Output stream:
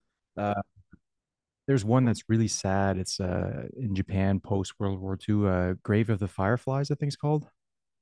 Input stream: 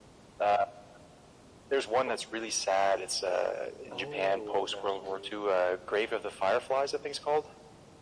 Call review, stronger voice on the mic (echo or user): echo